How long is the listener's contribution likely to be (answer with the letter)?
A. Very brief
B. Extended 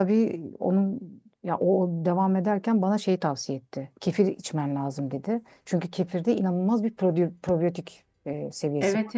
B